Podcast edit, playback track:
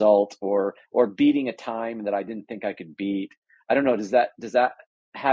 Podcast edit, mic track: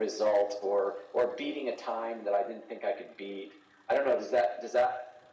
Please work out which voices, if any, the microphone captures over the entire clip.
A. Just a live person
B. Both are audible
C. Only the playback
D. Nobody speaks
C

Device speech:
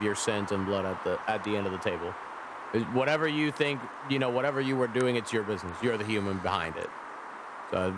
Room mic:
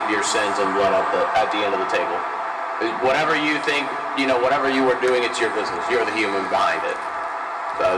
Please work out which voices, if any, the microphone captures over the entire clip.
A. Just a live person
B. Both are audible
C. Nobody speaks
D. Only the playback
D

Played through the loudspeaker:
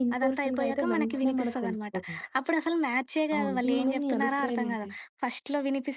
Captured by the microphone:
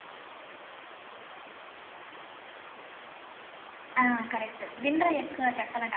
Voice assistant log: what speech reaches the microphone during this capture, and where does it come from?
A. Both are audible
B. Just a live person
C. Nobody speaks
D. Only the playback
B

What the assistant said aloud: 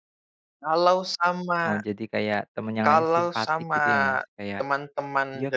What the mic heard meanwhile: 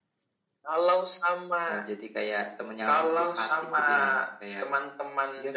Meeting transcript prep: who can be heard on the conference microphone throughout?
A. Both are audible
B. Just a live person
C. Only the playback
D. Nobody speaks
C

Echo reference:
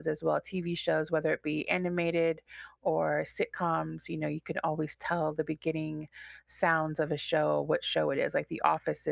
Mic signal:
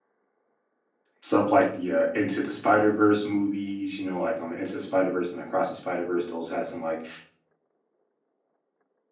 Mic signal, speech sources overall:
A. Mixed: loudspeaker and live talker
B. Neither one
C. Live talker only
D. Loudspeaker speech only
C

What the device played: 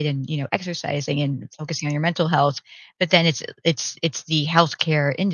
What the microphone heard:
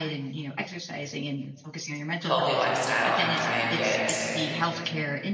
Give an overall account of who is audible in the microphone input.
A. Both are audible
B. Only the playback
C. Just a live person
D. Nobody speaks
A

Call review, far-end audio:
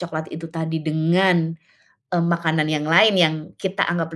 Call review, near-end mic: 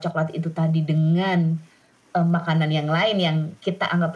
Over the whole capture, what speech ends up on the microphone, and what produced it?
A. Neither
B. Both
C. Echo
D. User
C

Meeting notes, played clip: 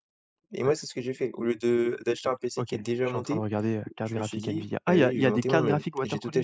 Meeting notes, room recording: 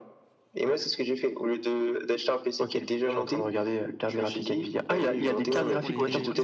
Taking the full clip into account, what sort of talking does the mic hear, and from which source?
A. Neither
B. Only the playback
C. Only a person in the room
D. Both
D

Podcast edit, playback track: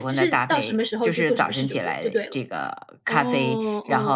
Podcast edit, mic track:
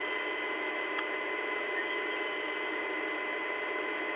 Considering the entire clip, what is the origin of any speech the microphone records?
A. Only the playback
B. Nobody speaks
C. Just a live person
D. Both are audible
B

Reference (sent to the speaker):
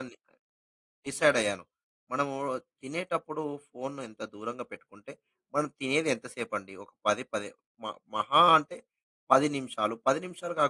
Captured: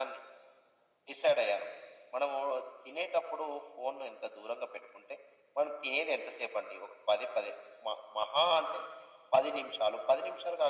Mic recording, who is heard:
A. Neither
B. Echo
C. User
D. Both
B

